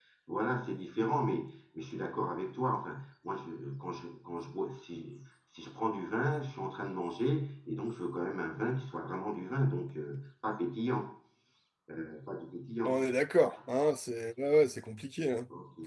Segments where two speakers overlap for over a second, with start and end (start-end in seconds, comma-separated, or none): none